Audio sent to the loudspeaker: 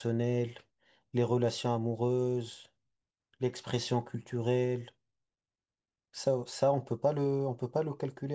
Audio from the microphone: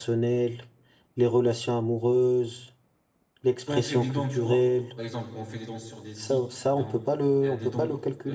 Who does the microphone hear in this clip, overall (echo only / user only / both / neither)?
both